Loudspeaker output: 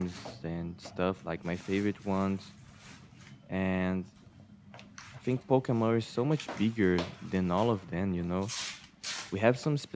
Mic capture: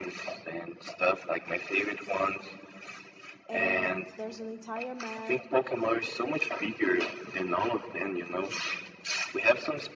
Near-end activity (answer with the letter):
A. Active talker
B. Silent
A